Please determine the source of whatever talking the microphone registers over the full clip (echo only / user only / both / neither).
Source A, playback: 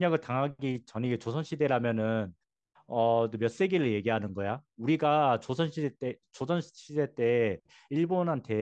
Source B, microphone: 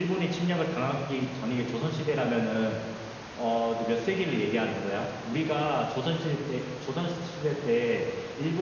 echo only